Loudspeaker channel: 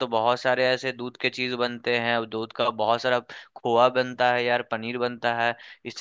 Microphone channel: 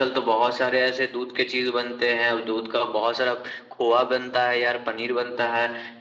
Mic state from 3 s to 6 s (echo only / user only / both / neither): echo only